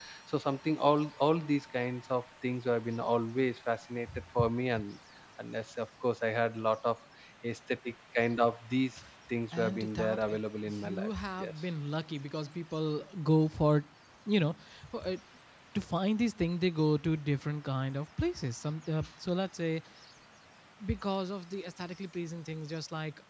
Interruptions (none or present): present